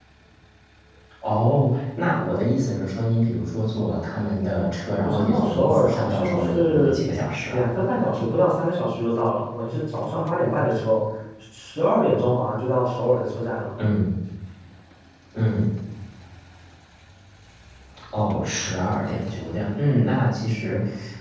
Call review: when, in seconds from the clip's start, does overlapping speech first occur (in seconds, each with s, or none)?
5.0 s